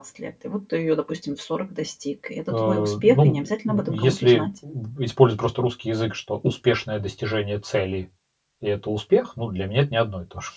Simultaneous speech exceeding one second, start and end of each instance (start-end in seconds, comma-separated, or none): 2.5-4.5